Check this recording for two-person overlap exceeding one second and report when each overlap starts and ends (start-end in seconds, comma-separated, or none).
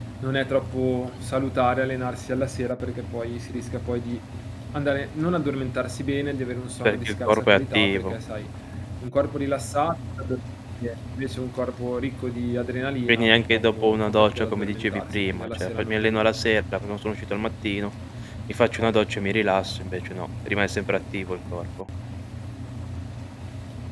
6.8-8.2, 13.1-16.2